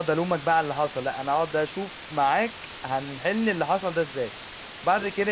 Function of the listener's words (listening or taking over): listening